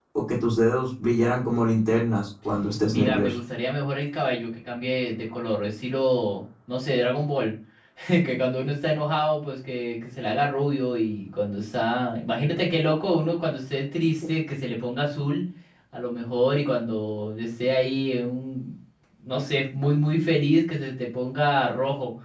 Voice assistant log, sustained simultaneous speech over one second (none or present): none